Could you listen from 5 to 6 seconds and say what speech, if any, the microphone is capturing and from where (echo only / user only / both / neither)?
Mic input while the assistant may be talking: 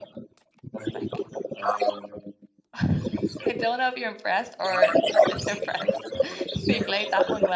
both